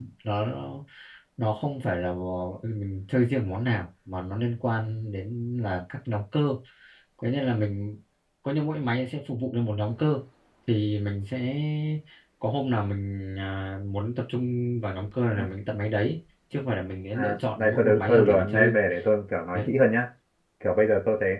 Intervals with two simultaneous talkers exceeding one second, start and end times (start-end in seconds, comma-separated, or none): 17.1-18.8